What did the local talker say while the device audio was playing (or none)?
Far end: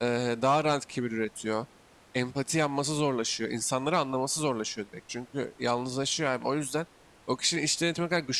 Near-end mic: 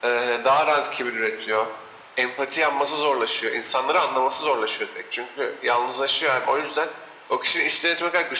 none